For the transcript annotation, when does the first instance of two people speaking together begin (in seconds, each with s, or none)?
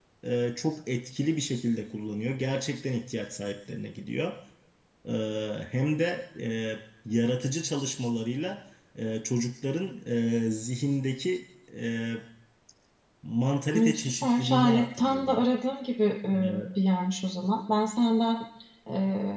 13.7 s